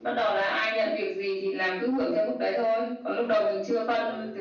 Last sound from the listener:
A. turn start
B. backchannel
B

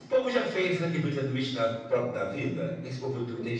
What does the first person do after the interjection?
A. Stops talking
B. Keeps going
B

